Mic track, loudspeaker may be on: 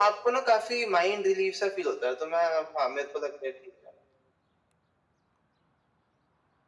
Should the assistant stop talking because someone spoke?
No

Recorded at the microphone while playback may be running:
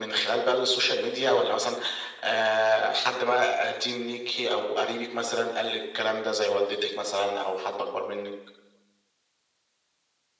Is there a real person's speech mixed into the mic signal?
No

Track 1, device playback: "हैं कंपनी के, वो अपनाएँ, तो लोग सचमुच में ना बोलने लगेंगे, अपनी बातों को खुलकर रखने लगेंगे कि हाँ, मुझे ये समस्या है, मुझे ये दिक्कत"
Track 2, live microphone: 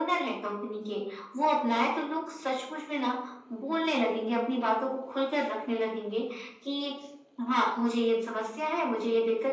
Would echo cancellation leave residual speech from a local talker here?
No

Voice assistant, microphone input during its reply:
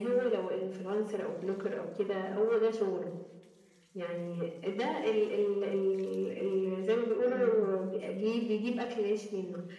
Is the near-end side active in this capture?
Yes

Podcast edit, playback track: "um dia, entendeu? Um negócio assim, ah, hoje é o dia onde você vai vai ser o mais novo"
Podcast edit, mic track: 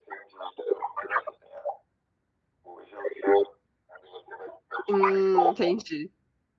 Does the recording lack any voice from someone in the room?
No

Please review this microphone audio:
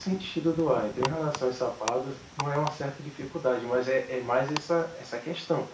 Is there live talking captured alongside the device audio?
No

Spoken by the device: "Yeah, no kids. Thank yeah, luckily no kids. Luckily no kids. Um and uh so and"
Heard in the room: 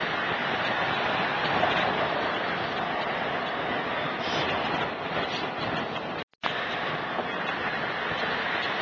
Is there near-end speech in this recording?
No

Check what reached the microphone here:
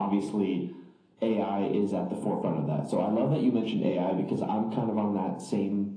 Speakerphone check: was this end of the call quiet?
Yes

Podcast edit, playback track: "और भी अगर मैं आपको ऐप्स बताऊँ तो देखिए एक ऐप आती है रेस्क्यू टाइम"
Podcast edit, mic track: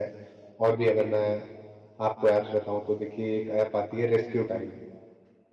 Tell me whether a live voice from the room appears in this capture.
No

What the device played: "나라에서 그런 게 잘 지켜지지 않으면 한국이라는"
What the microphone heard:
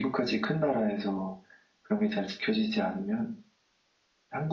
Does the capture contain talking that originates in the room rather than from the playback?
No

